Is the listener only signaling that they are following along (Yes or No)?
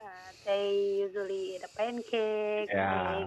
Yes